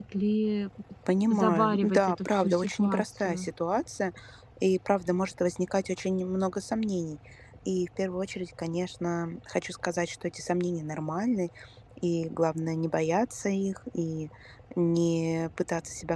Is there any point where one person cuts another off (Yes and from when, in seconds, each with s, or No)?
Yes, from 1.3 s